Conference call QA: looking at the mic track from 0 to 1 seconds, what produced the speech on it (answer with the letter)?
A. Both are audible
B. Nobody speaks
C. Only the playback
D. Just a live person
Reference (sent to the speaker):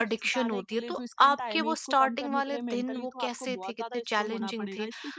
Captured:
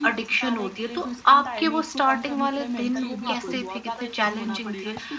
C